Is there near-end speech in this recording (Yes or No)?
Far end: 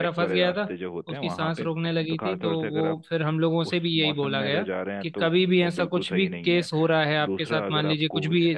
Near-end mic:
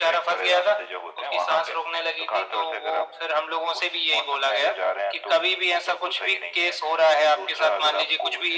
No